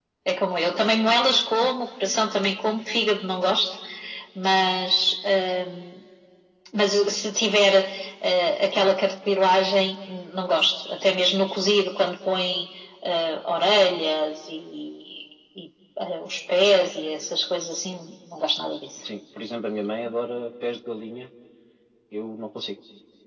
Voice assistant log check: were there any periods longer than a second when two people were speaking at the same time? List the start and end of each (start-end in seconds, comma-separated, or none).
none